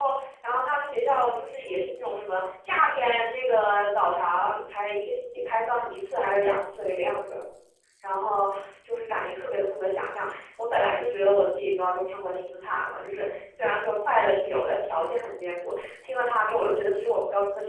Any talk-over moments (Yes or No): No